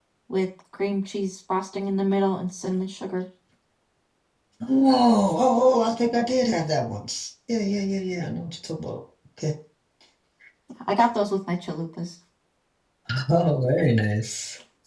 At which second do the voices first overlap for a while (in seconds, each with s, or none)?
none